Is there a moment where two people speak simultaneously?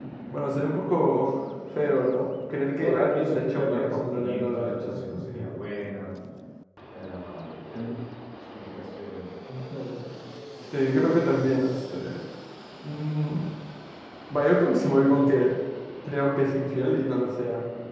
Yes, from 2.8 s

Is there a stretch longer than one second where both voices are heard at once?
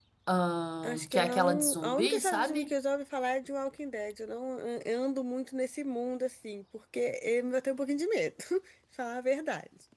Yes, from 0.8 s

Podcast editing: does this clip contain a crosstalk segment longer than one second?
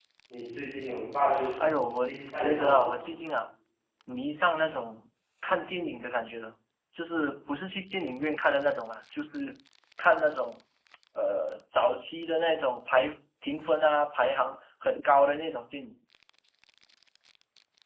Yes, from 1.6 s

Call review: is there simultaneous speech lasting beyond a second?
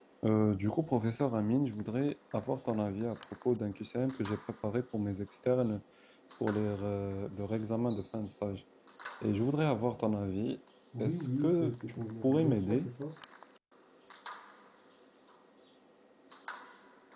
Yes, from 10.9 s

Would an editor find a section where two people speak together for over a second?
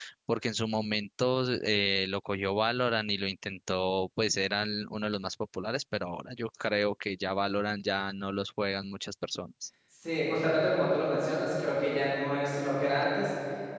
No

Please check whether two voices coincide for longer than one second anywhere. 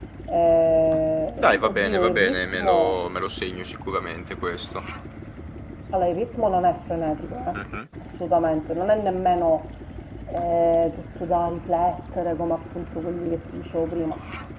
Yes, from 1.4 s

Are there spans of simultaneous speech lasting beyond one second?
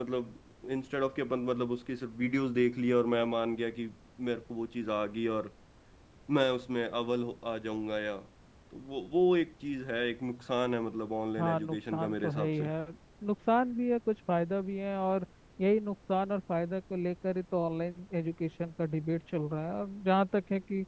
Yes, from 11.4 s

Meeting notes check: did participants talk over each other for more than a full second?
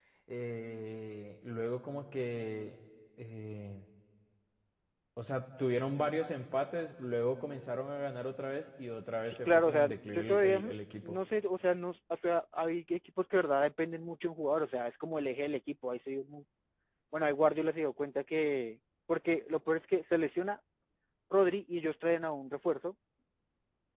Yes, from 9.3 s

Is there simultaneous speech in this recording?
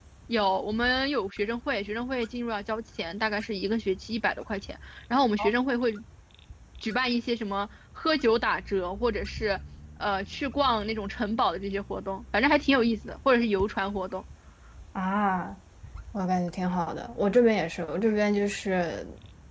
No

